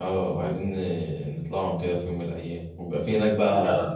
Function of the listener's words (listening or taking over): listening